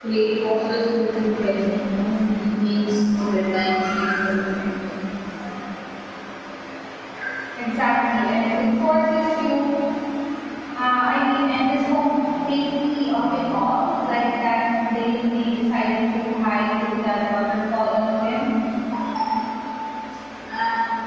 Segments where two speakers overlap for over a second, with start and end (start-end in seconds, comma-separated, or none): none